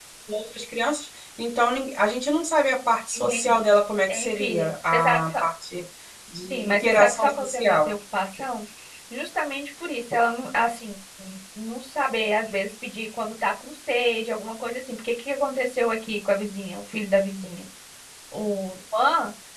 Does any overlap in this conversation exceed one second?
Yes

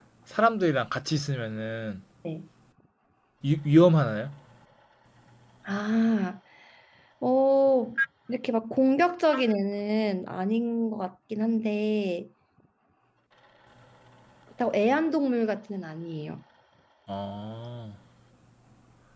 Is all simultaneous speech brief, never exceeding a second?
Yes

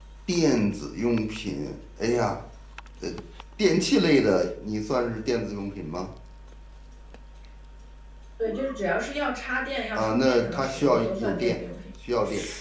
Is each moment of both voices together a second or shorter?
No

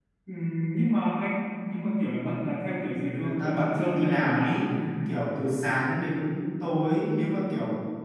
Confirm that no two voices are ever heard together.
No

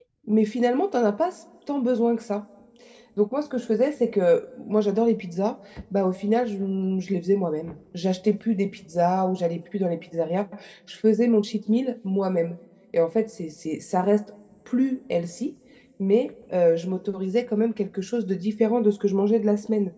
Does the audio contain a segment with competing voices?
No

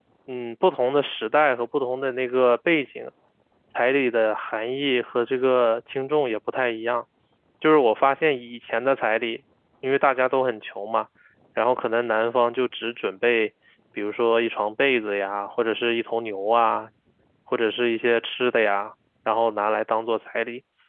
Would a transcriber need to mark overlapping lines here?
No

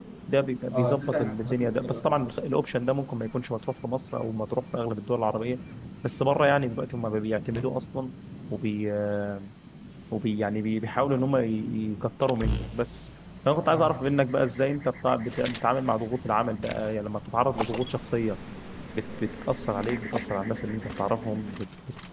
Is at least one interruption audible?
Yes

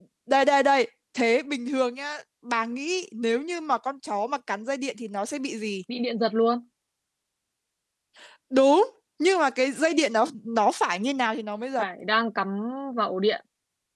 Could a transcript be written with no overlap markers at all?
Yes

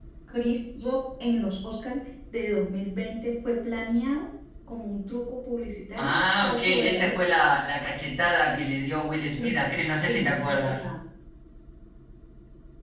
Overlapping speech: Yes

